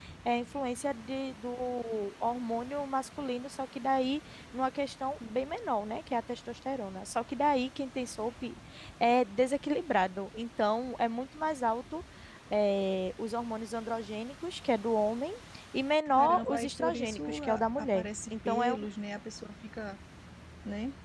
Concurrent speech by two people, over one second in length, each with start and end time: 16.1-18.9

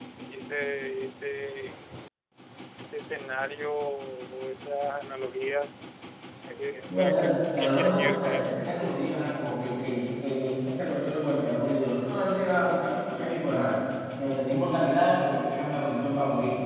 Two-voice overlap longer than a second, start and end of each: 6.9-8.5

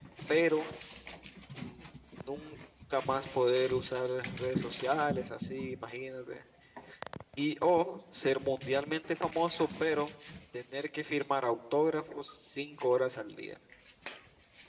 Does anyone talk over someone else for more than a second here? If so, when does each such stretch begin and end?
none

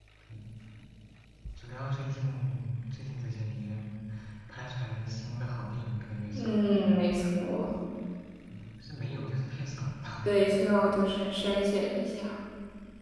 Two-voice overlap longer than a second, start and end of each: none

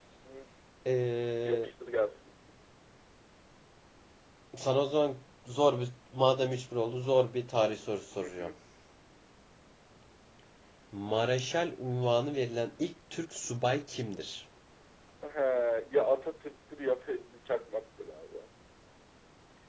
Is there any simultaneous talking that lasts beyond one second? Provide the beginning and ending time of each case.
none

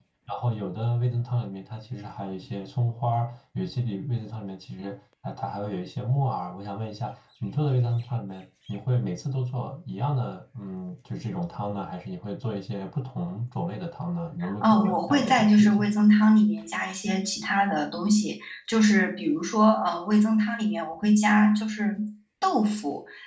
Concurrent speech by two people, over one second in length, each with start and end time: 14.6-15.9

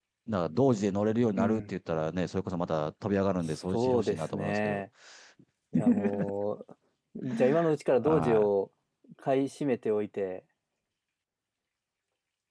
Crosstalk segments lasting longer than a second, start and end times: 3.5-4.8

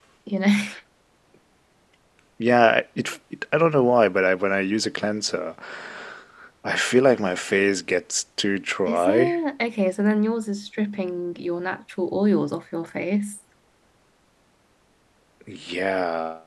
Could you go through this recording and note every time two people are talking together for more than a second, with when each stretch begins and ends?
none

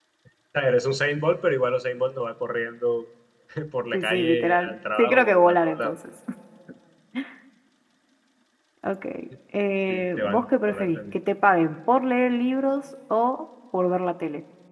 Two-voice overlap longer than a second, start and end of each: 3.9-5.9, 9.9-11.1

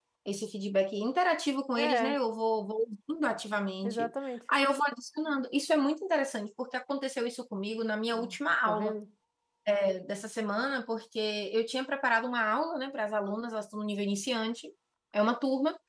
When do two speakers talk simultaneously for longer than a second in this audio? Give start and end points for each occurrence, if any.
none

